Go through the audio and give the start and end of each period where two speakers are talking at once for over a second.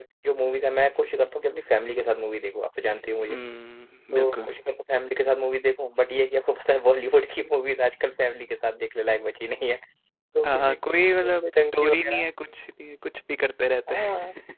10.4-12.2

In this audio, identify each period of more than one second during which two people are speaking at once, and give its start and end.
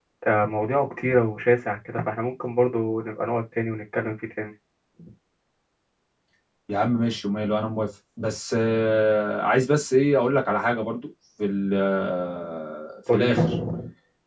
none

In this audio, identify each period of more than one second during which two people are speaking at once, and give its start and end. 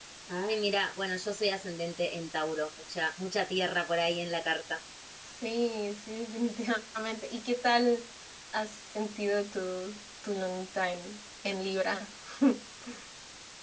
none

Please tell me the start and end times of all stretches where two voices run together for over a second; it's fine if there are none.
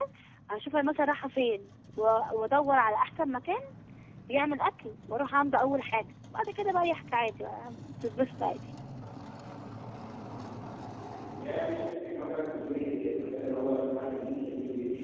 none

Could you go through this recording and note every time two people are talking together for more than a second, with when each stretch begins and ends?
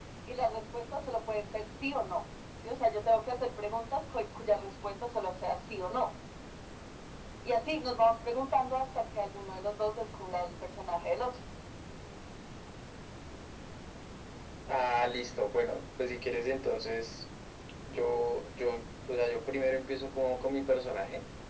none

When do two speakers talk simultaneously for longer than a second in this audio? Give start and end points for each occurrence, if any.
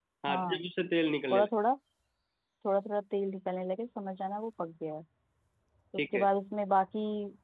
none

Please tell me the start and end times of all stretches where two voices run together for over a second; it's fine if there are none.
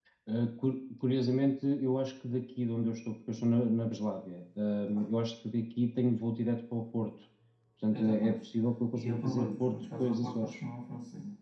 8.9-10.7

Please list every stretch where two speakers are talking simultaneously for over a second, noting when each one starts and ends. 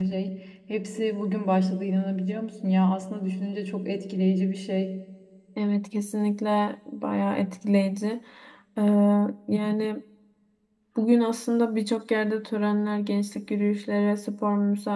none

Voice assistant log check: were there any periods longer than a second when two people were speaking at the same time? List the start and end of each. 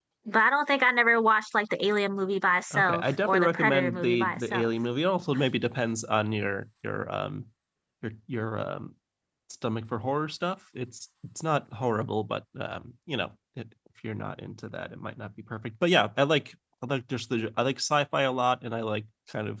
2.7-4.7

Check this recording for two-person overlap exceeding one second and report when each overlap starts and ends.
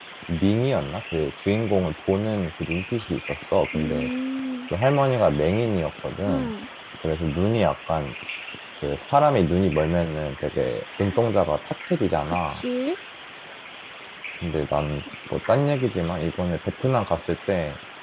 none

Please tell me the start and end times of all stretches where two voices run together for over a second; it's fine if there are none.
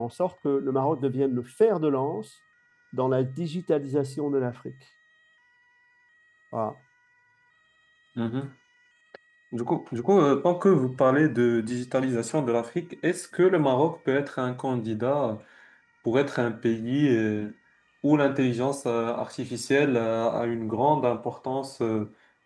none

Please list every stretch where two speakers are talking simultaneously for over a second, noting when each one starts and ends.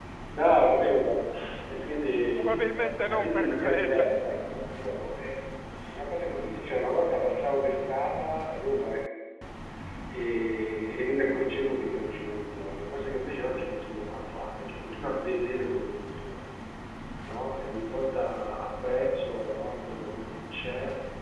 2.6-4.0

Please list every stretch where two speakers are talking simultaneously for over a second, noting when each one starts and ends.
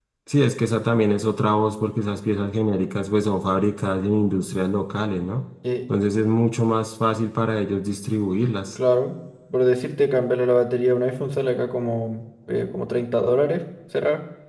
none

